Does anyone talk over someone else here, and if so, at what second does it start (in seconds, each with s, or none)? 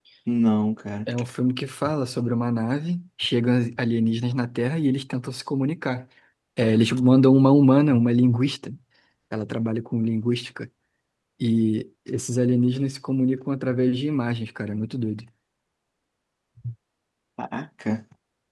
none